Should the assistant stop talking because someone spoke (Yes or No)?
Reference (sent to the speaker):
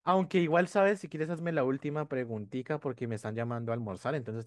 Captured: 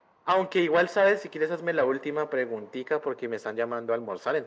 No